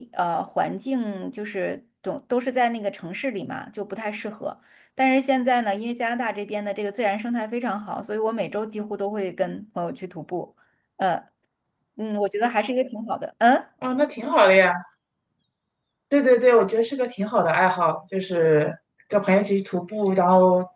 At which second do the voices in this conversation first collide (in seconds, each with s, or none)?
none